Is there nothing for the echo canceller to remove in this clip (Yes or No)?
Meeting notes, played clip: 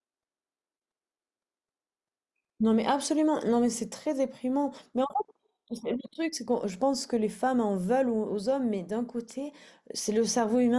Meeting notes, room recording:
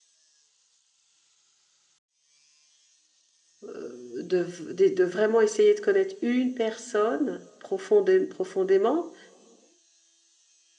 Yes